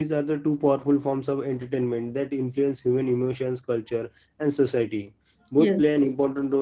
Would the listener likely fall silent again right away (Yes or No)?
Yes